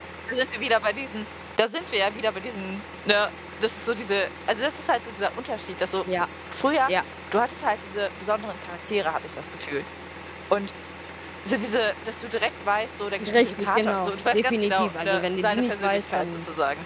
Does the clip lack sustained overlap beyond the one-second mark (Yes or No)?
No